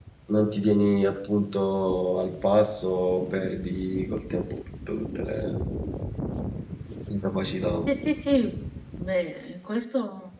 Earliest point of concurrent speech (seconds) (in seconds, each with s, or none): none